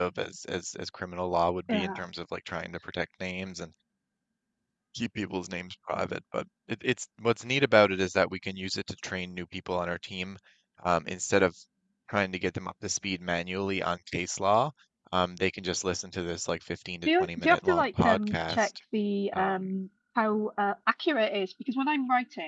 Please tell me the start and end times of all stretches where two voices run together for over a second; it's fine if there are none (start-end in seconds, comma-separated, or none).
17.0-18.7